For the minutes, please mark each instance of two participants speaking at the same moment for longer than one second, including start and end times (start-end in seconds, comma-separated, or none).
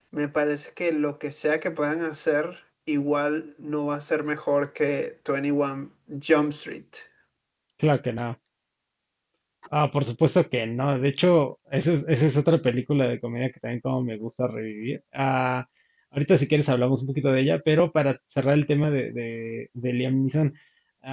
none